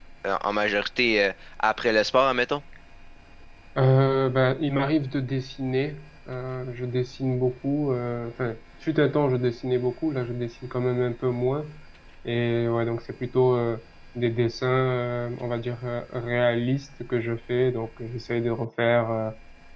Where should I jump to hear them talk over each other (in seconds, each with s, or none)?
none